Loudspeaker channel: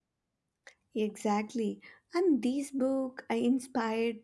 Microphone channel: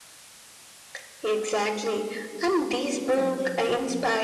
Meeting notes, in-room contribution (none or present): present